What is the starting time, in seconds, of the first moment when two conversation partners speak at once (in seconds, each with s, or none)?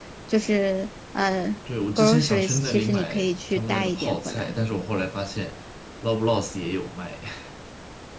2.0 s